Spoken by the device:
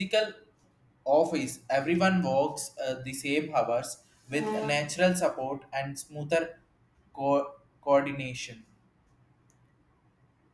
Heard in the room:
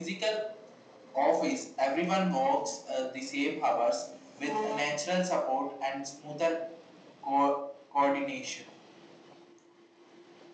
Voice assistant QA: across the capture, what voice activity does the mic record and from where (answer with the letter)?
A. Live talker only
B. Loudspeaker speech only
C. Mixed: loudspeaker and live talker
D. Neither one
B